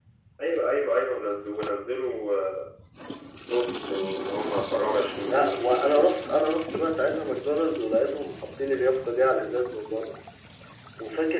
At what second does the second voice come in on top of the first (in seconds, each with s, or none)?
5.2 s